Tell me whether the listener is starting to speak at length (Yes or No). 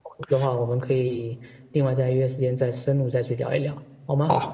Yes